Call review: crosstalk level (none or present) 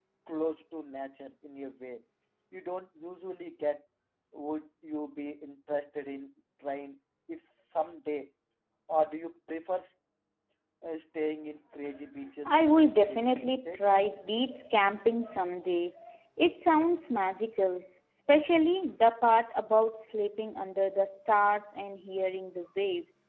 present